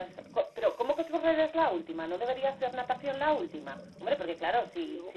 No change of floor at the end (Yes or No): Yes